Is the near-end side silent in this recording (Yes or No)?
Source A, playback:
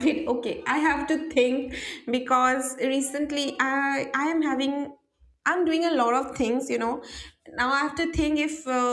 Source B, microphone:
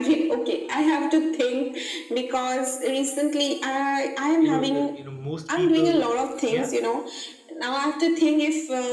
No